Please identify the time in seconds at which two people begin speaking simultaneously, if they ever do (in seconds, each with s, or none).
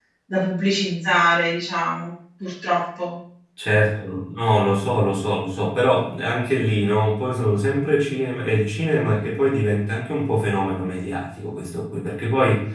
none